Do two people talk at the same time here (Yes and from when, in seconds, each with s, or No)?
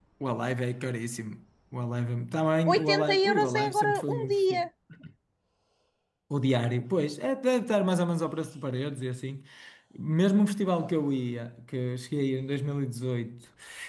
Yes, from 2.7 s